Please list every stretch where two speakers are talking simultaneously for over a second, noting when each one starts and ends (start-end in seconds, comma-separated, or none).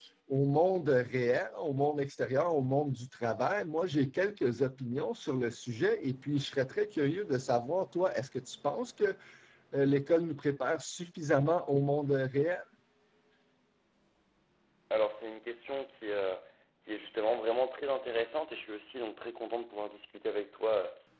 none